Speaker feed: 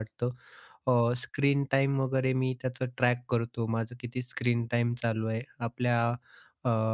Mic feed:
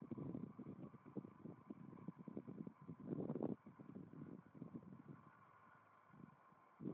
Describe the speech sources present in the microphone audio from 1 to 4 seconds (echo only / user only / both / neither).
neither